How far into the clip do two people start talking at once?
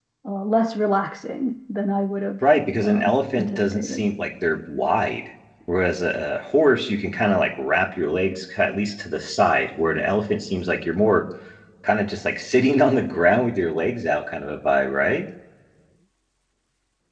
2.8 s

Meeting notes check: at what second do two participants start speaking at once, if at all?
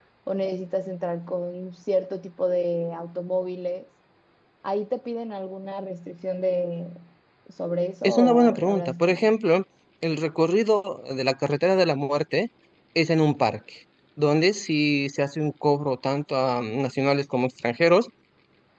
8.0 s

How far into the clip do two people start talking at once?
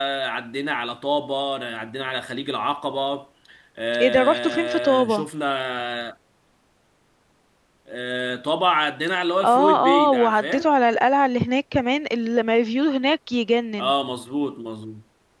4.0 s

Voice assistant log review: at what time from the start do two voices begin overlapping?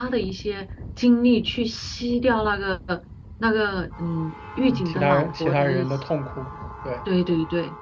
4.7 s

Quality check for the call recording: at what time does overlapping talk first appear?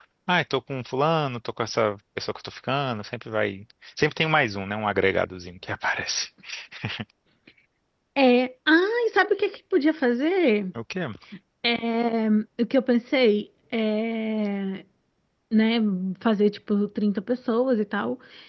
none

